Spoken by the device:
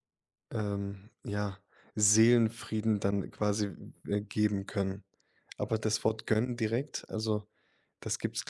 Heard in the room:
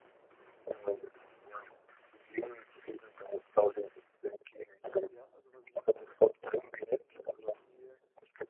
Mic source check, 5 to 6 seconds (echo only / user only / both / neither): both